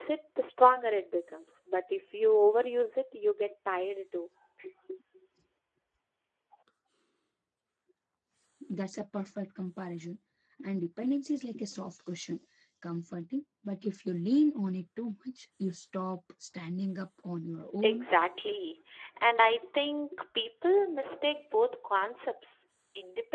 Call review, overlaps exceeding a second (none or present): none